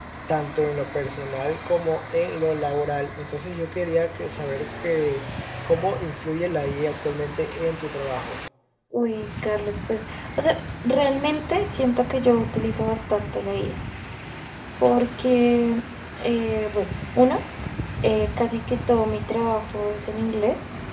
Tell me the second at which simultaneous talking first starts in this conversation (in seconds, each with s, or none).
none